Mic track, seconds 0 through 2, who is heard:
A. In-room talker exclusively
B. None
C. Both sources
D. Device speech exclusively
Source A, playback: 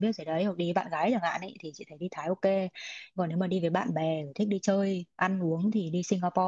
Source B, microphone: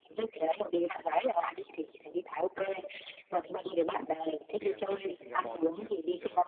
D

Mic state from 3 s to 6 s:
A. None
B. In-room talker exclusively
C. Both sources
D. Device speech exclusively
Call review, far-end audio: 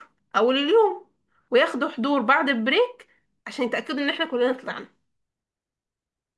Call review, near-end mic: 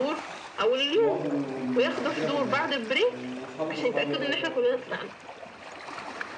C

